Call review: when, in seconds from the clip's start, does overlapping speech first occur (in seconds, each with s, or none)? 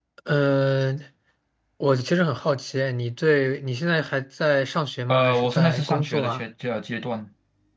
5.1 s